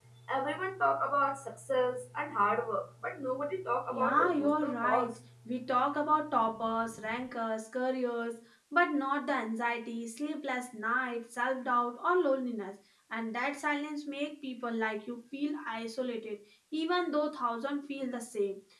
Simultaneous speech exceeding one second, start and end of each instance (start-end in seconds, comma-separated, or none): 3.9-5.1